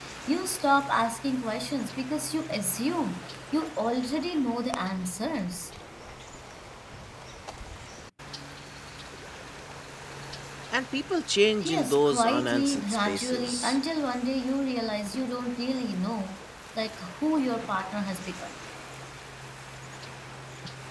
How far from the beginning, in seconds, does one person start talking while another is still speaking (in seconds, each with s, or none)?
11.6 s